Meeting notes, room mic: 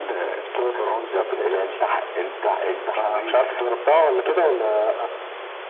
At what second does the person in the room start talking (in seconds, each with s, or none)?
none